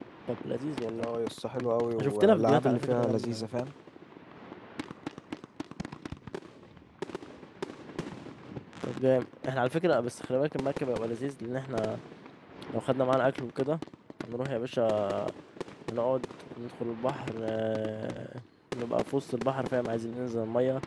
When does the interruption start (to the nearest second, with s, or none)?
2 s